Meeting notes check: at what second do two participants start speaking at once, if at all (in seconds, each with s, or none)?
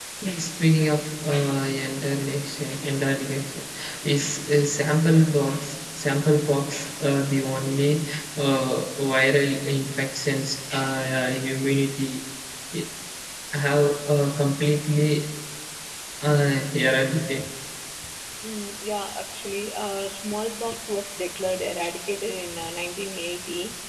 none